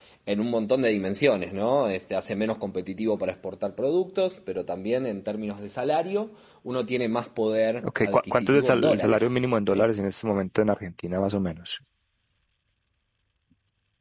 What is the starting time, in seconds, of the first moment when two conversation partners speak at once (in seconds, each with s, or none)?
7.8 s